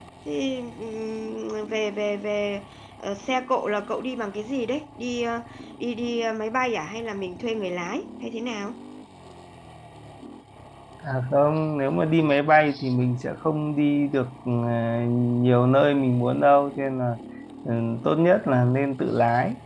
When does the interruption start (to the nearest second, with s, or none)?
none